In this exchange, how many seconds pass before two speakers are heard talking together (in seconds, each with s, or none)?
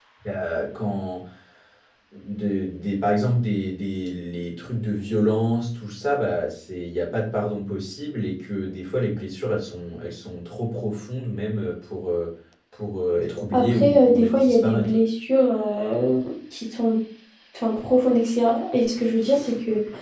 13.5 s